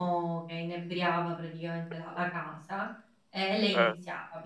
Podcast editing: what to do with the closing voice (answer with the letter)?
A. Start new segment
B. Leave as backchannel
B